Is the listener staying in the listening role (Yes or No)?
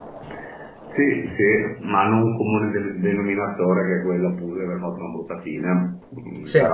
Yes